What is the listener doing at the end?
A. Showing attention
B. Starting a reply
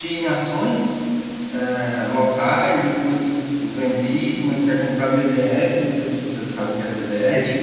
B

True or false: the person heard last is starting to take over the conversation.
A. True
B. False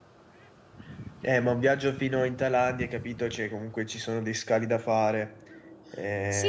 A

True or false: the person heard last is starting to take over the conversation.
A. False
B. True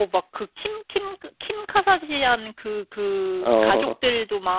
A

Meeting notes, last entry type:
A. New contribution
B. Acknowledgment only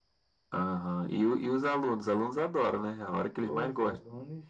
A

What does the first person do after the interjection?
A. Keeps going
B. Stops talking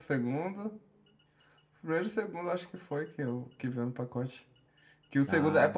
A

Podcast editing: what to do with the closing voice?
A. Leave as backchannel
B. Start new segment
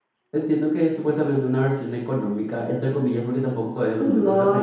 B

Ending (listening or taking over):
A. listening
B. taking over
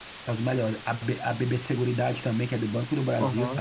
B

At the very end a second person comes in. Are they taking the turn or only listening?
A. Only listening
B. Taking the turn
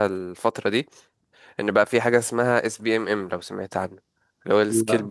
A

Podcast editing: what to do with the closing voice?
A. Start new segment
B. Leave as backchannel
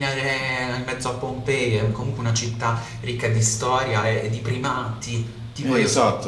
A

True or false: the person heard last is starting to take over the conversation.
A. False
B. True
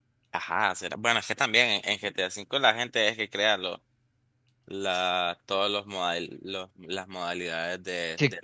B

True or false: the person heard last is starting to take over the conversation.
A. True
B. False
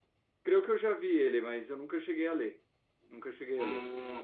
A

